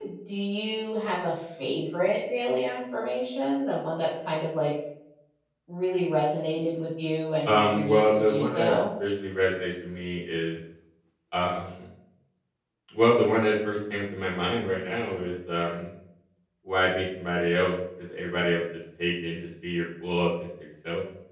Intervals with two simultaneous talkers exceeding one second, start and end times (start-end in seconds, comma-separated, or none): 7.5-8.8